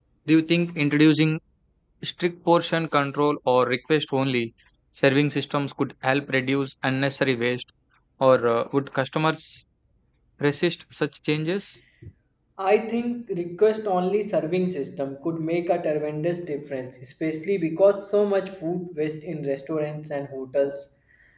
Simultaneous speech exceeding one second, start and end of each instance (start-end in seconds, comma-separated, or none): none